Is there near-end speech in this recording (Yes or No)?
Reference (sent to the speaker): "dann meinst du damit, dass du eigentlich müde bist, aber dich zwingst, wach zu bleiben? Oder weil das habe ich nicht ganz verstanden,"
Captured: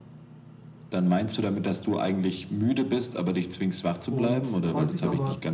Yes